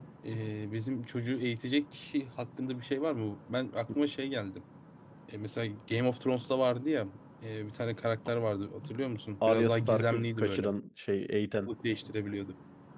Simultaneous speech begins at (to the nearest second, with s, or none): 9 s